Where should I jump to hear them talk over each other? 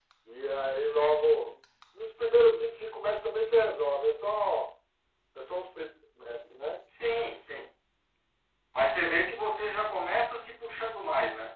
none

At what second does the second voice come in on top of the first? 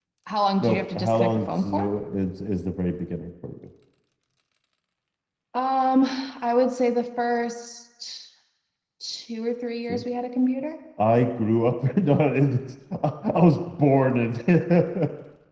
0.6 s

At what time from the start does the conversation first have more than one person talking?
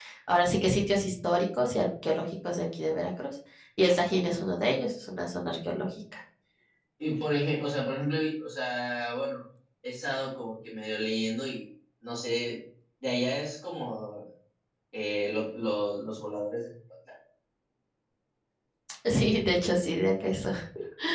none

